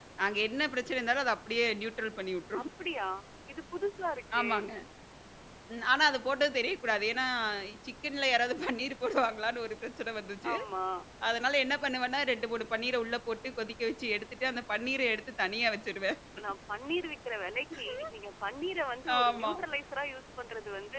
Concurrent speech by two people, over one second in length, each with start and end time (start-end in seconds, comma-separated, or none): none